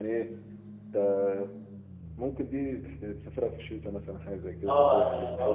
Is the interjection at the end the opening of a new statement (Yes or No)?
Yes